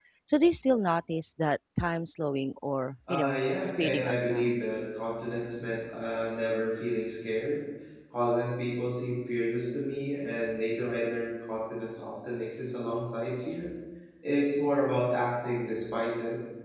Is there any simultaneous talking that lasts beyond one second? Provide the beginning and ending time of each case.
3.1-4.6

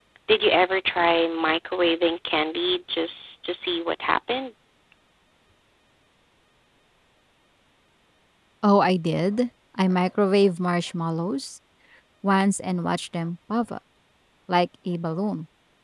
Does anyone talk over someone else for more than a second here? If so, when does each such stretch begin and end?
none

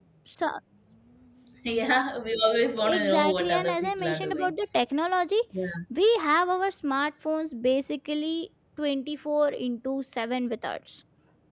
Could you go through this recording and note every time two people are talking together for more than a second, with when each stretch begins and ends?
2.8-4.5

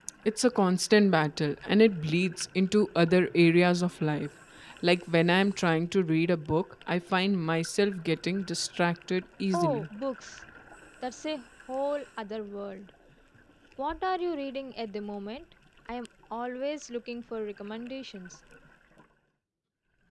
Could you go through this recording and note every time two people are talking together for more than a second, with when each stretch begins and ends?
none

